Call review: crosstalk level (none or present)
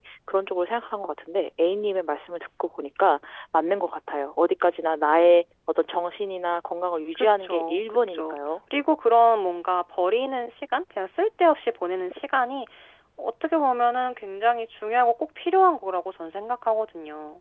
present